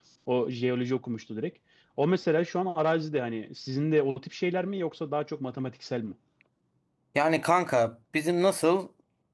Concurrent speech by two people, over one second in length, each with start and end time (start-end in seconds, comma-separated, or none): none